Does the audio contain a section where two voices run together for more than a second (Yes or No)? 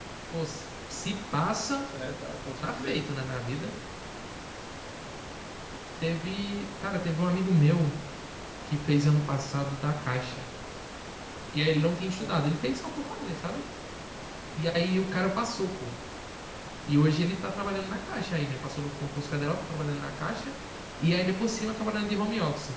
No